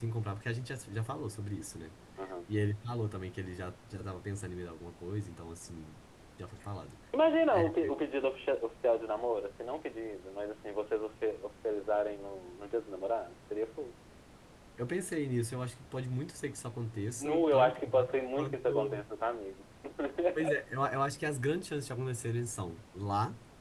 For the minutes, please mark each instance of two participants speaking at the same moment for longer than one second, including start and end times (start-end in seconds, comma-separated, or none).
17.2-19.1